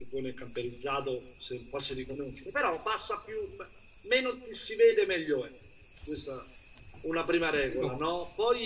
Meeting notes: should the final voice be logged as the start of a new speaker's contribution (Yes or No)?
No